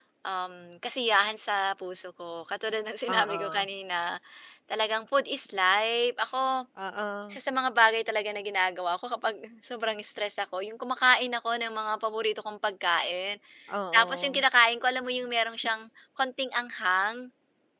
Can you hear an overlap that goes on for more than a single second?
No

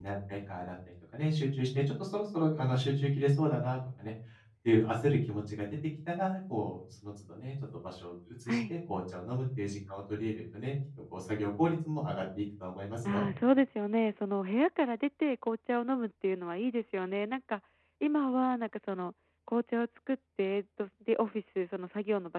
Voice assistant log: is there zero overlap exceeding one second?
Yes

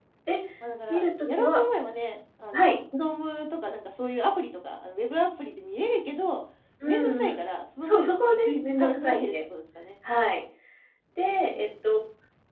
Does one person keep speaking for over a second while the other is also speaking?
Yes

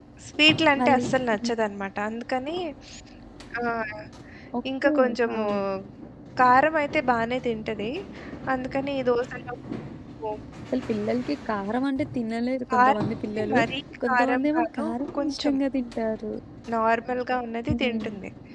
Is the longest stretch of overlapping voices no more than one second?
No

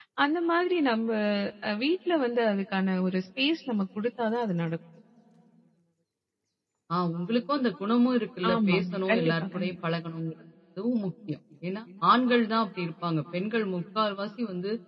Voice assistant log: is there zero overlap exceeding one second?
No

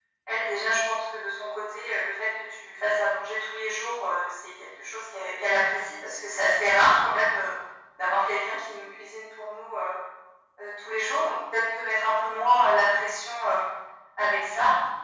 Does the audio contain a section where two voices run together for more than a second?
No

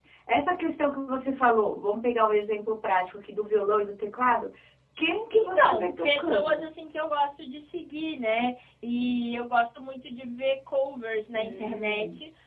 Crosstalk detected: Yes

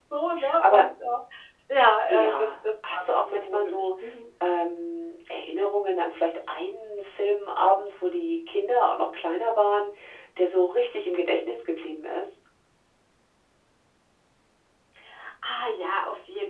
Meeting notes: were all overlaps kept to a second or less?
No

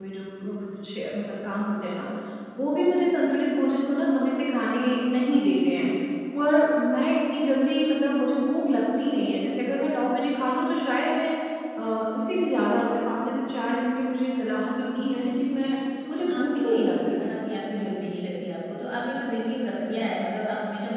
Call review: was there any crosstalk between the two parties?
Yes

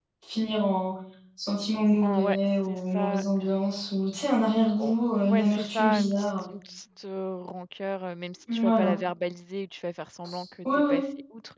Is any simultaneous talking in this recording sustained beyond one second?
Yes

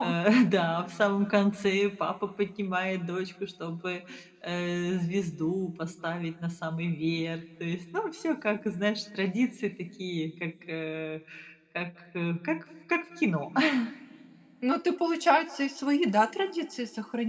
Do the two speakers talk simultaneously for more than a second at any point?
No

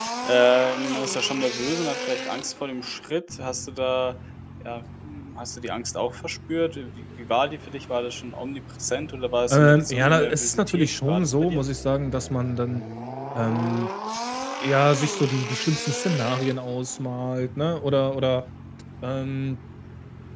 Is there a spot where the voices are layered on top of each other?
Yes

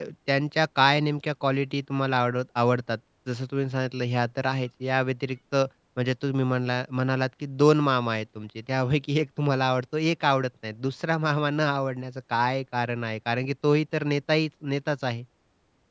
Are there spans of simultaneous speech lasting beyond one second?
No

